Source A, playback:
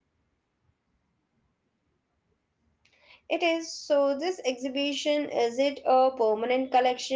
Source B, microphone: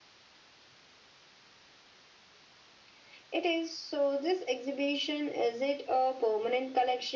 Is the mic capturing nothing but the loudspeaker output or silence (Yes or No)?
Yes